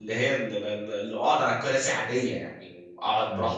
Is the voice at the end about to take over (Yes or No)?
No